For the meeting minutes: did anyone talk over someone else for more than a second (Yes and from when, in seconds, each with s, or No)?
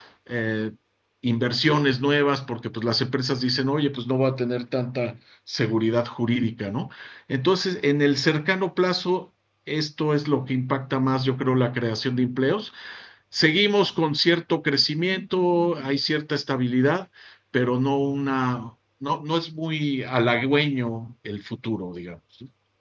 No